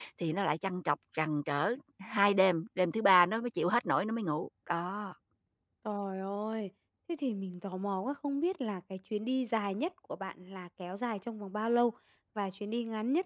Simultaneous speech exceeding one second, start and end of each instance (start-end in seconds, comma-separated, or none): none